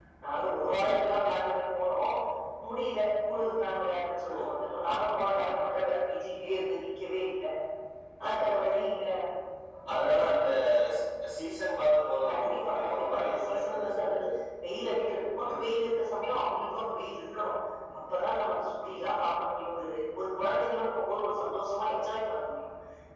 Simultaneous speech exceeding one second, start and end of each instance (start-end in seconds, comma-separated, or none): 12.3-14.2